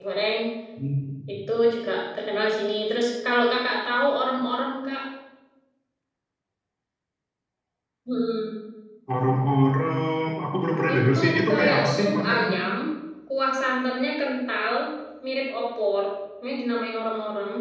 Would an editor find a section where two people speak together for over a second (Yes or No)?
Yes